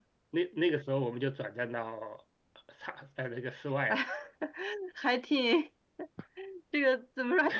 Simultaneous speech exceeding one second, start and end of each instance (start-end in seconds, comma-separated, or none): none